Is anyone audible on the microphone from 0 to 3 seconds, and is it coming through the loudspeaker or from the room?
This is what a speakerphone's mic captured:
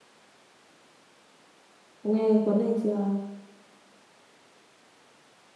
user only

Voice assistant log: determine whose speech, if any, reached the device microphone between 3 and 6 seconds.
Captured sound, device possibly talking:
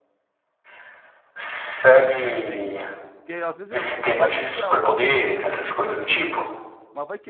both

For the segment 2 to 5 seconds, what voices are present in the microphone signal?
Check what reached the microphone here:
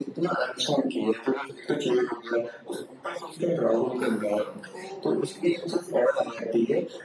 both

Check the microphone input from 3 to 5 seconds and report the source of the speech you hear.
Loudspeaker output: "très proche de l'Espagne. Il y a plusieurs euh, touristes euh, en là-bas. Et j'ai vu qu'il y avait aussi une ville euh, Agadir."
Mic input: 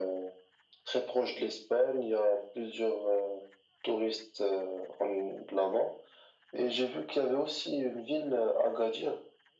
echo only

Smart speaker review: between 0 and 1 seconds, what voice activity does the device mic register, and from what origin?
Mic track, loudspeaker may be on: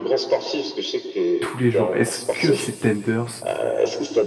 echo only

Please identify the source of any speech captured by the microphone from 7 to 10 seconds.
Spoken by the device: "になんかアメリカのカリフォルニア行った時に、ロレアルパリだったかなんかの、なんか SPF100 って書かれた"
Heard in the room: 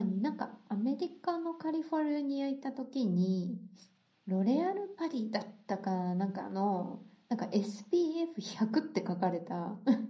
echo only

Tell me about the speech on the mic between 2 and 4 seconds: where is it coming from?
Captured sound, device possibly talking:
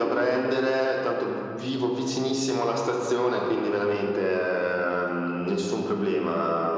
echo only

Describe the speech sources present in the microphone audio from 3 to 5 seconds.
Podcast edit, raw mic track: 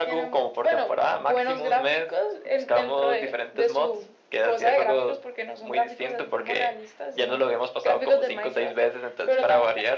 echo only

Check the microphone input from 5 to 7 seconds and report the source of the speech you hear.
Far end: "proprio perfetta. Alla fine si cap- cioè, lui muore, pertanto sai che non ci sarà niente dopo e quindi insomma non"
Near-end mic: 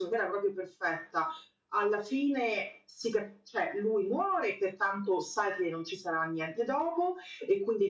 echo only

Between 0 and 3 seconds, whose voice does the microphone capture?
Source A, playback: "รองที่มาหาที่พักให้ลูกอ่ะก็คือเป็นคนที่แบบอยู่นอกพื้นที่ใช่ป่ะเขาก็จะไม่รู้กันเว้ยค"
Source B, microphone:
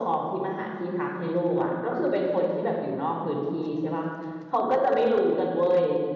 echo only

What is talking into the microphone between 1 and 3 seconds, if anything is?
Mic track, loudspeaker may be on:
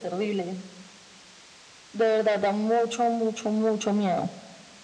echo only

